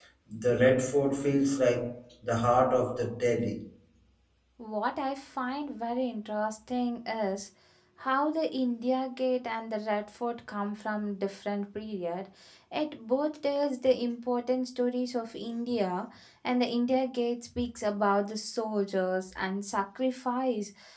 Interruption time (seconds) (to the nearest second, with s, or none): none